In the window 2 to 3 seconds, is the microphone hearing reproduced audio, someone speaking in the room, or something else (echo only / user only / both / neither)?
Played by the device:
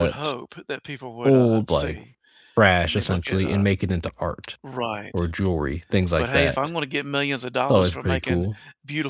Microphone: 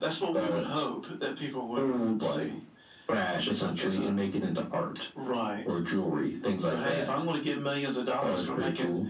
echo only